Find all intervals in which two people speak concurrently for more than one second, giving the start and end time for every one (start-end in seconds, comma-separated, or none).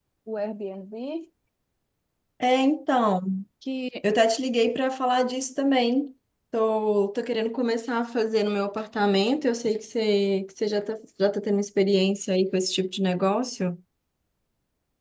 none